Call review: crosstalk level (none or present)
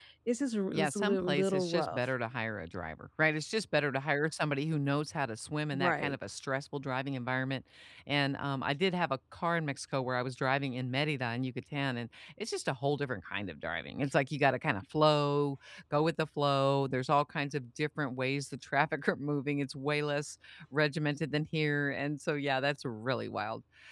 present